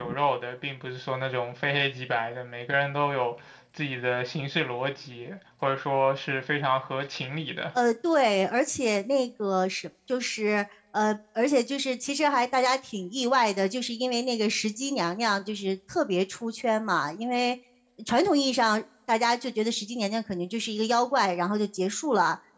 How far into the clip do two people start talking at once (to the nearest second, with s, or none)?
none